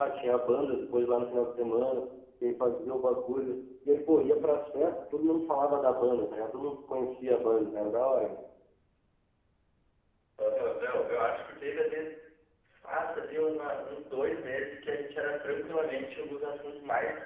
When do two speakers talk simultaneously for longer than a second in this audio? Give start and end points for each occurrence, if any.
none

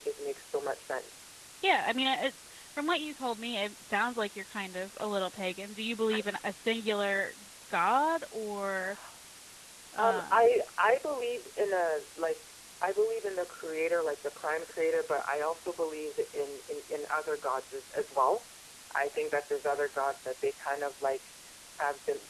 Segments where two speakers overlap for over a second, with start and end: none

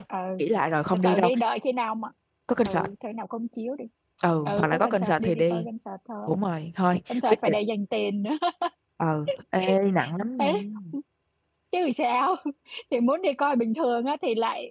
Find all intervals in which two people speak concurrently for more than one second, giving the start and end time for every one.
4.5-5.7

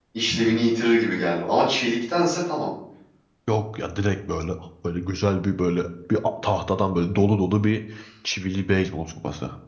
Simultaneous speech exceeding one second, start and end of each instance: none

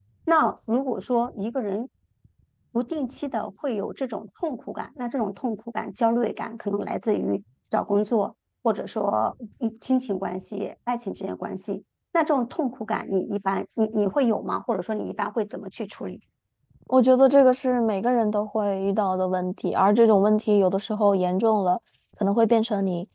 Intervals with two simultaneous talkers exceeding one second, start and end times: none

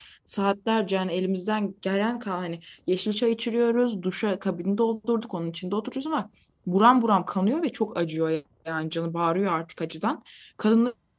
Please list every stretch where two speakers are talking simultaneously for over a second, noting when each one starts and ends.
none

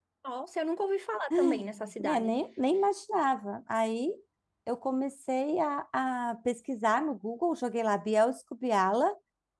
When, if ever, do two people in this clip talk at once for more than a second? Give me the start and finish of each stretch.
none

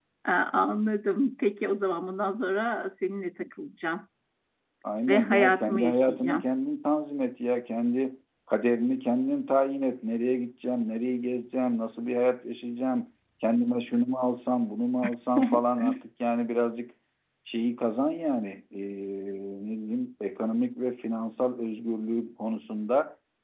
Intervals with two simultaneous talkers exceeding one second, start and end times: 5.1-6.5

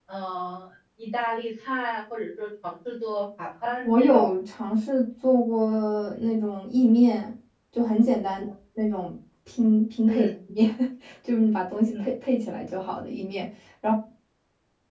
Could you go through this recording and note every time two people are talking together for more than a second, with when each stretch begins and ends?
none

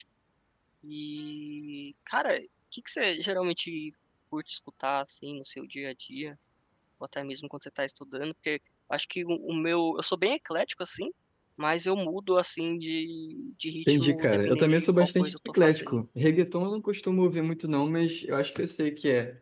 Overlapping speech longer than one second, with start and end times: 13.9-16.0

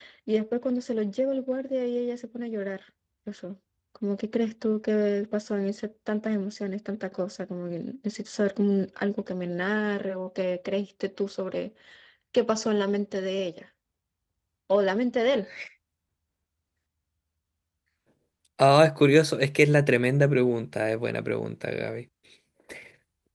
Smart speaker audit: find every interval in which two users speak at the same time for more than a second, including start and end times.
none

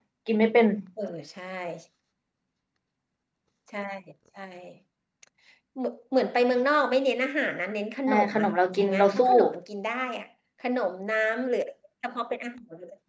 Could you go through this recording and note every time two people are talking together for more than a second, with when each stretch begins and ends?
8.1-9.3

